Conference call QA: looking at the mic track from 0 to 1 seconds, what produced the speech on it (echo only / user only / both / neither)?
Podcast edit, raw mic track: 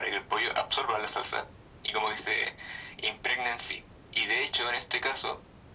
echo only